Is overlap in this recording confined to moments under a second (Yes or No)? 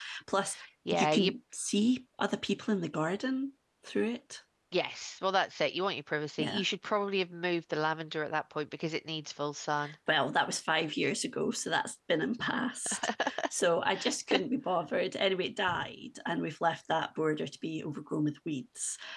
Yes